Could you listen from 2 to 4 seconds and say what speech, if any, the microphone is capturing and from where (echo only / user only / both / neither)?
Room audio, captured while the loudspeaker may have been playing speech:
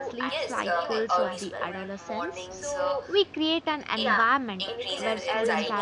both